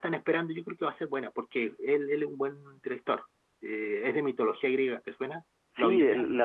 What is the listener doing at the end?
taking over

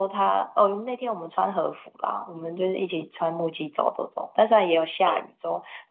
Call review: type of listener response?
listening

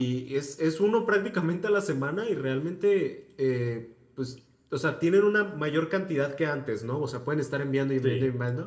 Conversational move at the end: listening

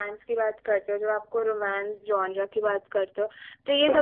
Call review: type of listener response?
listening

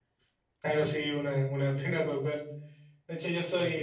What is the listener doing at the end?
listening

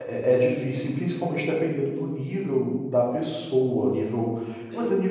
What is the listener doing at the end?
listening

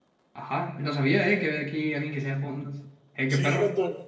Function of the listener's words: taking over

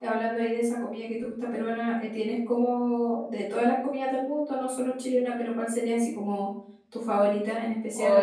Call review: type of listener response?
taking over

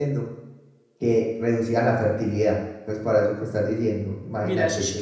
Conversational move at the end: taking over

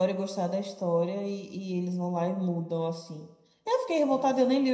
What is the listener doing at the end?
taking over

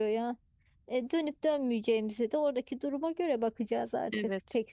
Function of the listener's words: taking over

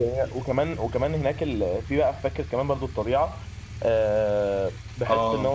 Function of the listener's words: listening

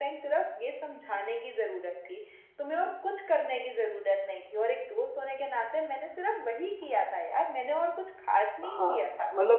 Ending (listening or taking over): taking over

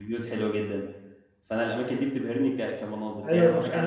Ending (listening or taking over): taking over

